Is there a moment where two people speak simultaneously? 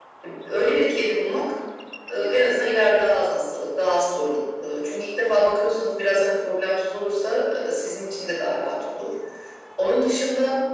No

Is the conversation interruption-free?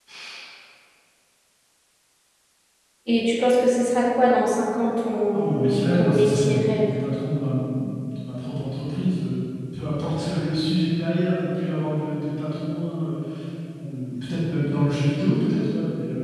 No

